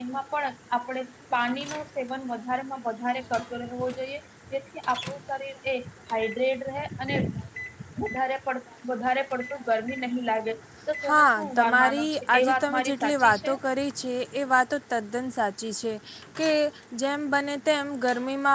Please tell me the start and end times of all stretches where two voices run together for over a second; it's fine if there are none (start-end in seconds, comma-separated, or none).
11.1-13.5